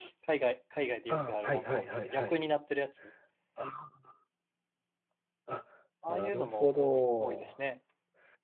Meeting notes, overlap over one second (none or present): present